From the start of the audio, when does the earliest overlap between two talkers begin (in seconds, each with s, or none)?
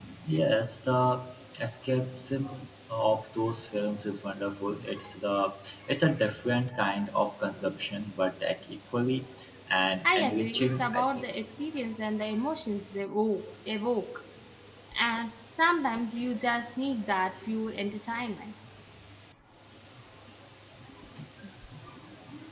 10.0 s